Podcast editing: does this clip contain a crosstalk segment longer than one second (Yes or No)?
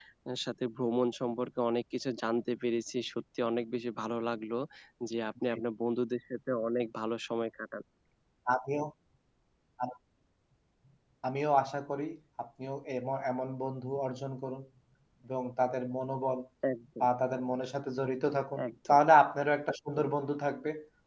No